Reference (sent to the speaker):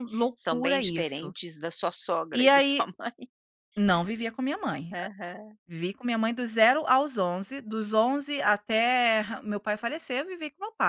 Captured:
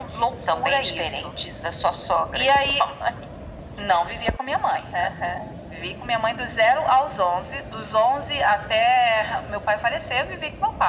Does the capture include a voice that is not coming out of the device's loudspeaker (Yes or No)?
No